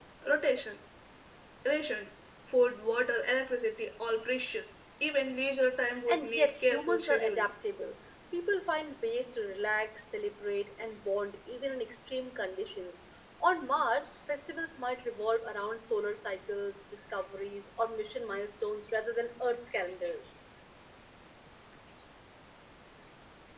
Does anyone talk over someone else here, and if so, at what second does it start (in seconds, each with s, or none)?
5.9 s